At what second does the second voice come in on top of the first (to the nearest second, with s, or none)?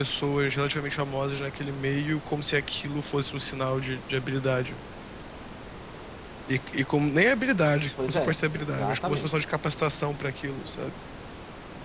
8 s